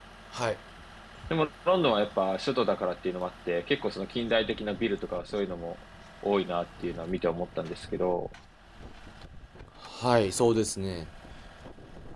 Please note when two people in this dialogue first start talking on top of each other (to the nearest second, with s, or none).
none